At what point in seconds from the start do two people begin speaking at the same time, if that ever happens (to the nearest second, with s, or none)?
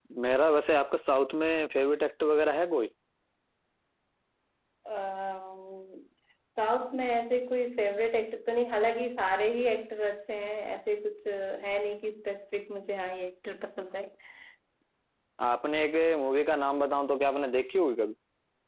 none